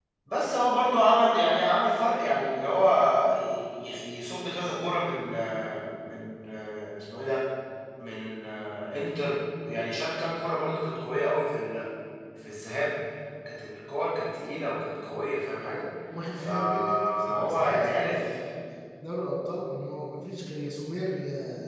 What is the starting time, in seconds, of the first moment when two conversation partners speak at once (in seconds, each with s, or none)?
16.4 s